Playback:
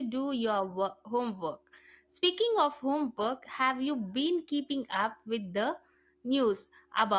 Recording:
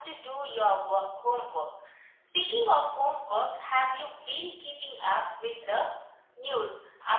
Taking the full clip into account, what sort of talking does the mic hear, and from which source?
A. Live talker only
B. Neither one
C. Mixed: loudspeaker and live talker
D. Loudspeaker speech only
D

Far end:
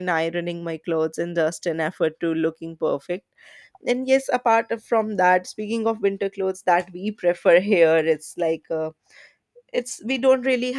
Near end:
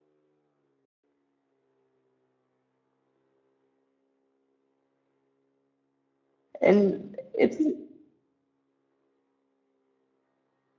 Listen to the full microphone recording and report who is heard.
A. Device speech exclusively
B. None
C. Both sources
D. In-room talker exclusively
D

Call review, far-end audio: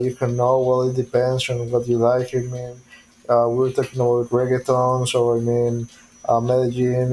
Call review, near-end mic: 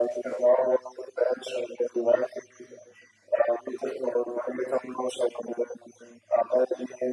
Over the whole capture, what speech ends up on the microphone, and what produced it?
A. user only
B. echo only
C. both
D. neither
B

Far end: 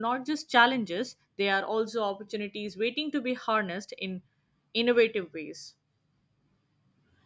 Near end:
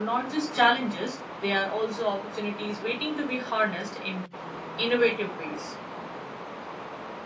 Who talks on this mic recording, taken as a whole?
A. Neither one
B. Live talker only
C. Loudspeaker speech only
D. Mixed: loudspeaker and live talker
C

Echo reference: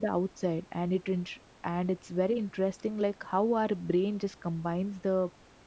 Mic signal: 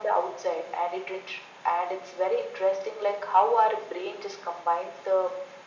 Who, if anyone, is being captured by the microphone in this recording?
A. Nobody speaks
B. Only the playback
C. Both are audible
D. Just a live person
B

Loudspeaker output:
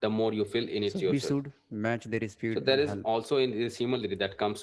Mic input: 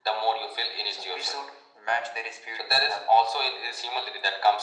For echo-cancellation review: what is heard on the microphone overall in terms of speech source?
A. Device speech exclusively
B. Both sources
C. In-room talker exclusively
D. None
A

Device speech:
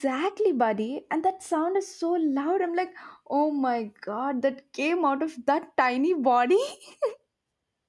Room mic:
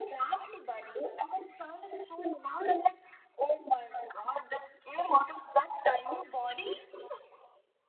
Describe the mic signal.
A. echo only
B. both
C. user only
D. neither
A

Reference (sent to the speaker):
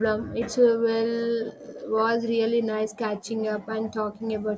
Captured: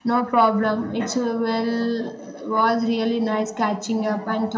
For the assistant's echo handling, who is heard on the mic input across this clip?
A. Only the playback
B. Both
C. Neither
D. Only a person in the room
A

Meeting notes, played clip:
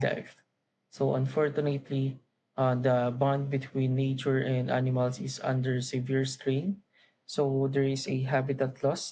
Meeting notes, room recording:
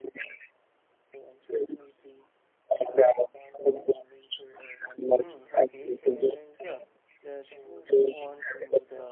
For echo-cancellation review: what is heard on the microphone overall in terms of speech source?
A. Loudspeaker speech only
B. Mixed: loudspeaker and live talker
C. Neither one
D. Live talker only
B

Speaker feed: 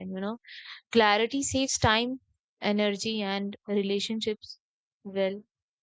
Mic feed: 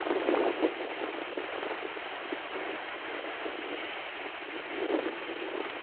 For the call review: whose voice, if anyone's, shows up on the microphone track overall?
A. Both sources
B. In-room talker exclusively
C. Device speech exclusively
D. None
D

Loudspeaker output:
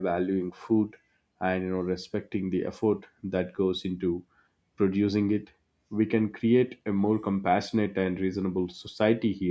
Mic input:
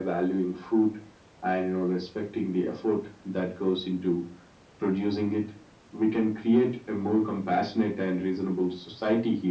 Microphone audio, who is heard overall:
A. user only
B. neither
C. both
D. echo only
D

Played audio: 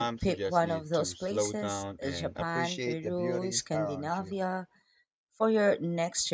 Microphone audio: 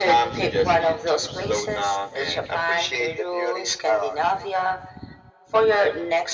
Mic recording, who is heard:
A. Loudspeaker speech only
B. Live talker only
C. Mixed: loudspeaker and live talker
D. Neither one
A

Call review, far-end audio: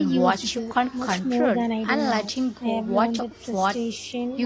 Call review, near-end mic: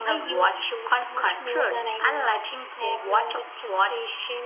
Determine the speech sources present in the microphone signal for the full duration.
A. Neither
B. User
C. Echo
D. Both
C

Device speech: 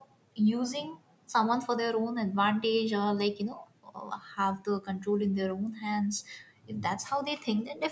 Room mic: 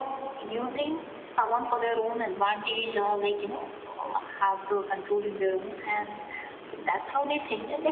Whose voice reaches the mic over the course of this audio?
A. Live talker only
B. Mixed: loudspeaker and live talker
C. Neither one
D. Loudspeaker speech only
D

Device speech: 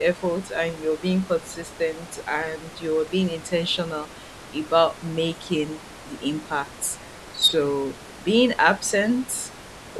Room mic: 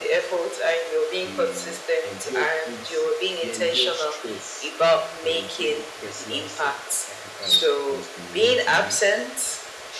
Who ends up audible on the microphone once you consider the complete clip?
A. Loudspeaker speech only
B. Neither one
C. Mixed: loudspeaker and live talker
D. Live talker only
C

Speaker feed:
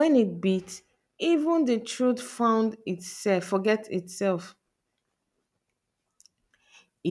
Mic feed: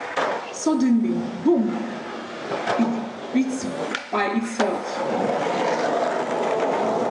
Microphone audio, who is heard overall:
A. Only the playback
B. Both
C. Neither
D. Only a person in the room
D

